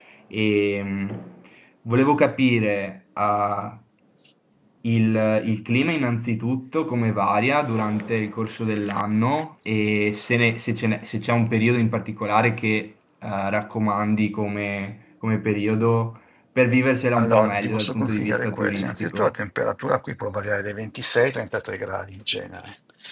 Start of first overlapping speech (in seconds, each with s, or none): 17.2 s